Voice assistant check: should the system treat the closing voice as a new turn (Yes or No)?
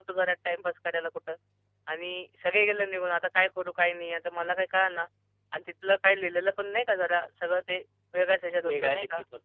Yes